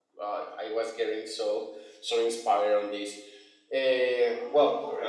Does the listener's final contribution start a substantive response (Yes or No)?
Yes